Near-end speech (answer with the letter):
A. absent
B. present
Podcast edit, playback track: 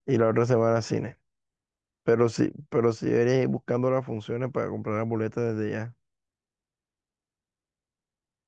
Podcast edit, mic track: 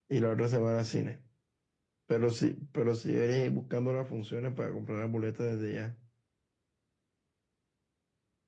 A